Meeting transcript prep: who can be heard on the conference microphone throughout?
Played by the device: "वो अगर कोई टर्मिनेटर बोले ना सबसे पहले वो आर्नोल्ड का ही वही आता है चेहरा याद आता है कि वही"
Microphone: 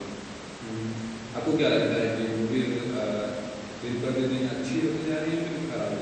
user only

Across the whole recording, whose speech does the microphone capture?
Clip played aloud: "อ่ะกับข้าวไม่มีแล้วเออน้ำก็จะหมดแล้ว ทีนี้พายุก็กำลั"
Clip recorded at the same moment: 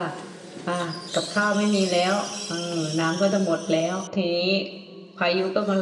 echo only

